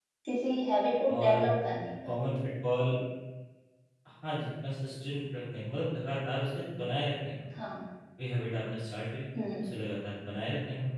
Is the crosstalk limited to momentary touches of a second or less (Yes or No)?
Yes